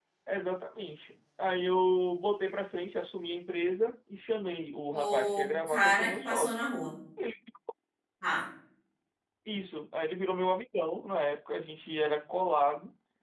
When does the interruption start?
4.9 s

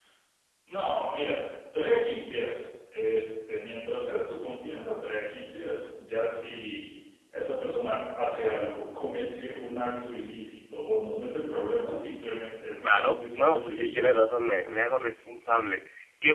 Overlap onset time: 12.8 s

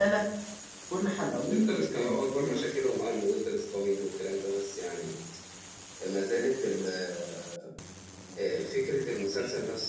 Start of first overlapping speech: 1.5 s

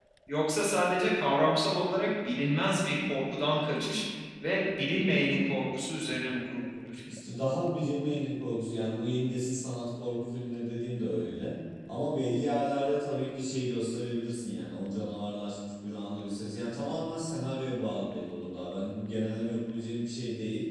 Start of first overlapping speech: none

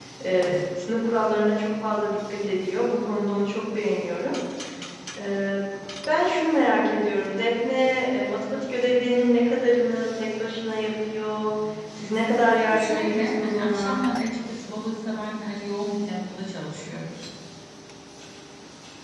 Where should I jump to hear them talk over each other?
12.6 s

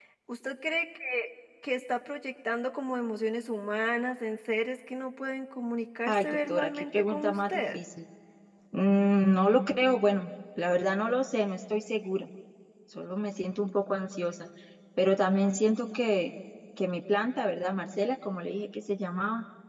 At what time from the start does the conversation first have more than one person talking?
6.1 s

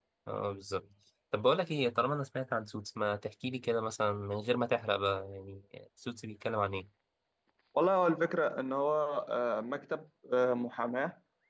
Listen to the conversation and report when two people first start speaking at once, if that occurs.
none

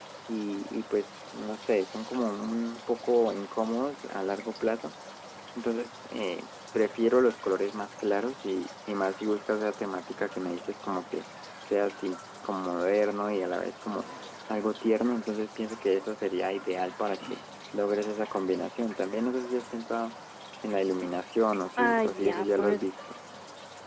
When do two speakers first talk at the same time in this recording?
21.8 s

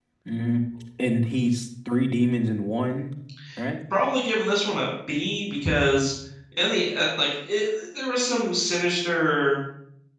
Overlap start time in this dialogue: none

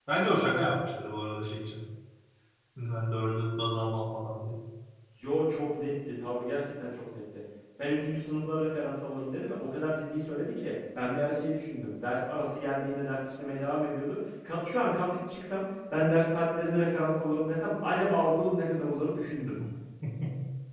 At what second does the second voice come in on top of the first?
none

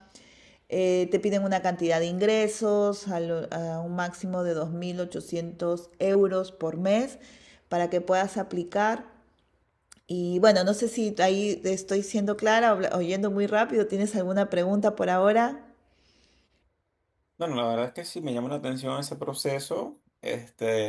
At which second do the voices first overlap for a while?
none

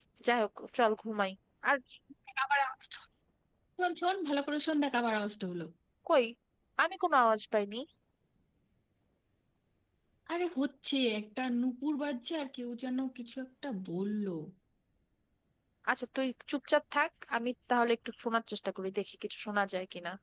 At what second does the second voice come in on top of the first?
none

